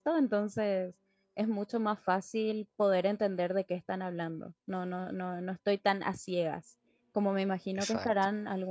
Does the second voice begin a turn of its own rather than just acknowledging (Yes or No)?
No